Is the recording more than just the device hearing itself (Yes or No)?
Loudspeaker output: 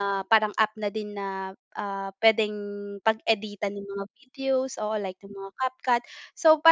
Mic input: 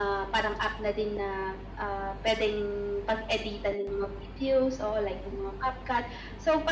No